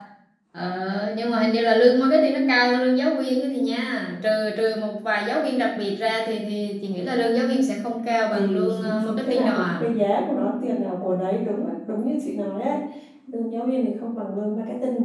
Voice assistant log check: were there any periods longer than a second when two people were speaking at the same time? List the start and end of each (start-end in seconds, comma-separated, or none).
8.3-9.8